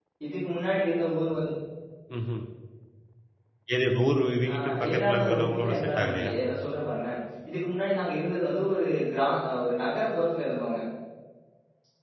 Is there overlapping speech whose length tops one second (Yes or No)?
Yes